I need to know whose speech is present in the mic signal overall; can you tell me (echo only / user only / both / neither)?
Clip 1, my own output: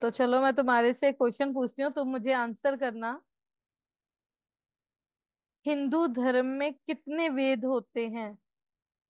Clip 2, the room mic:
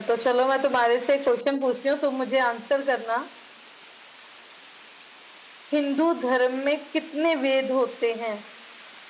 echo only